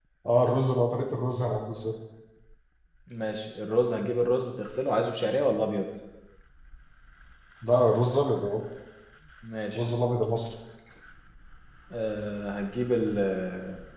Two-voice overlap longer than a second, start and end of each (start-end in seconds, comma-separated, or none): none